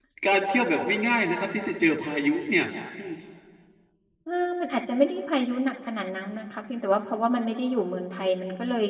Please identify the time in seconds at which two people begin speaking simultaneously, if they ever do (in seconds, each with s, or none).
none